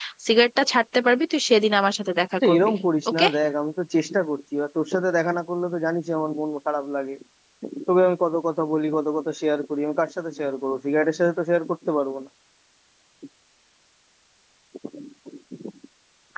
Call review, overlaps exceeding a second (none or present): none